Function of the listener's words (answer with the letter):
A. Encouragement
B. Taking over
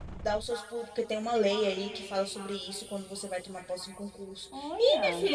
A